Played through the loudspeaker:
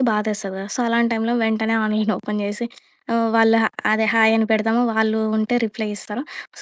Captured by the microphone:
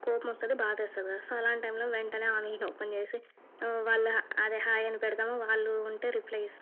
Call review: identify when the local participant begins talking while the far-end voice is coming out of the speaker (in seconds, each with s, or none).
none